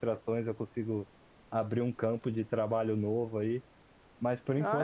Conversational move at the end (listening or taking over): taking over